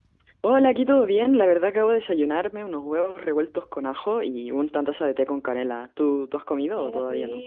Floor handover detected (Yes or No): Yes